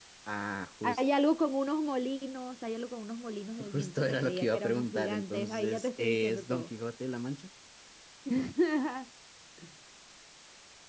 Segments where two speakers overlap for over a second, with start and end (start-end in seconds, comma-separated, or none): 3.7-6.7